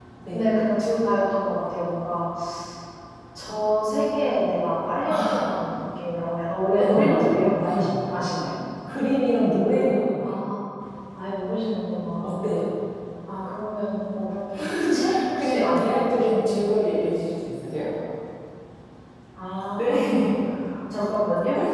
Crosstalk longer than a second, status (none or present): present